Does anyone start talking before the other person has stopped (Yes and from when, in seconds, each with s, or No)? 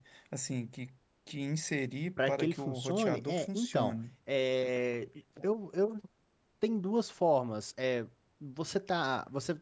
Yes, from 2.2 s